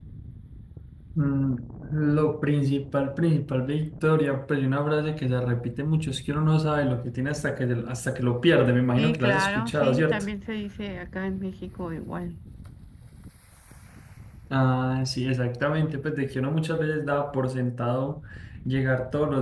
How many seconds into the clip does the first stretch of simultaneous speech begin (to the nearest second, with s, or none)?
9 s